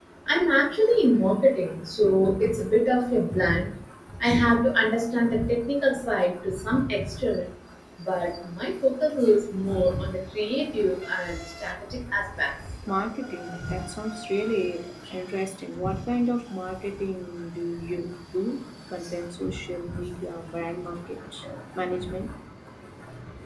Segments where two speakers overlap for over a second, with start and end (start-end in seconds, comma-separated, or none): none